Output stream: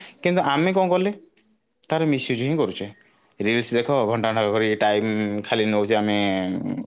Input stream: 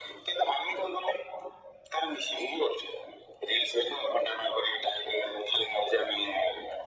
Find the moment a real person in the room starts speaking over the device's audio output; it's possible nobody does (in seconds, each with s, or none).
none